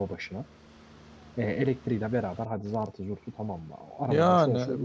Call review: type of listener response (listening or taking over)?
taking over